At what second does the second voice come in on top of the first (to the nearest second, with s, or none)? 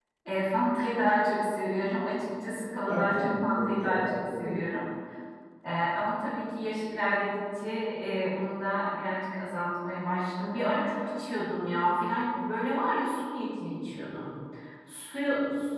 3 s